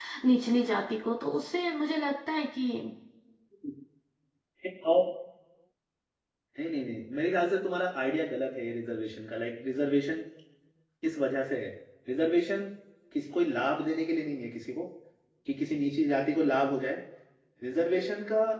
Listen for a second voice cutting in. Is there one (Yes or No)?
No